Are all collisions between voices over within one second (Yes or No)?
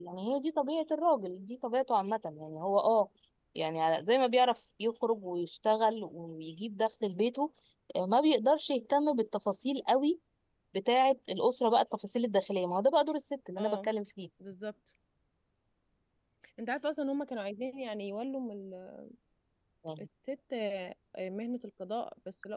Yes